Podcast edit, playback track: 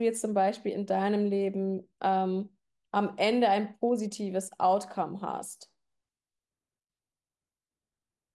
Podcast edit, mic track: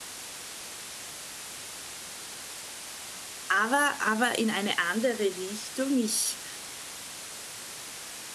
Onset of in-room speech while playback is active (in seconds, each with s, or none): 3.5 s